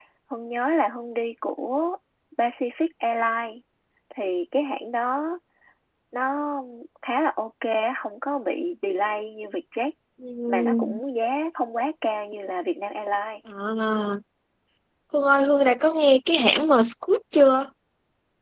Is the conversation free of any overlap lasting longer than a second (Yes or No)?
Yes